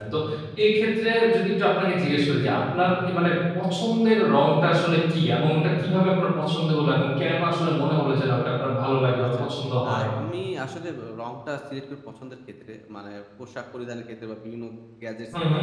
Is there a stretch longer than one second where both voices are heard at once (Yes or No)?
No